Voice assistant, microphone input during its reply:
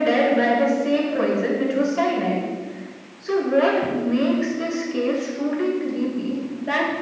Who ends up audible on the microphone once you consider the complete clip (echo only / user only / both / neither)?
echo only